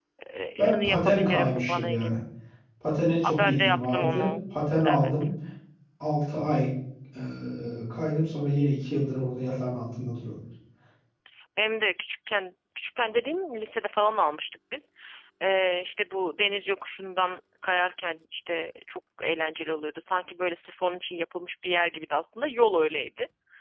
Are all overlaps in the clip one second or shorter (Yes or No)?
No